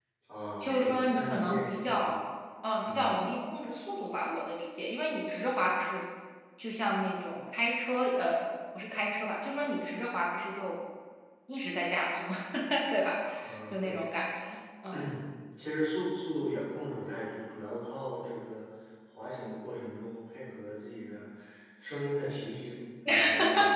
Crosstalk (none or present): present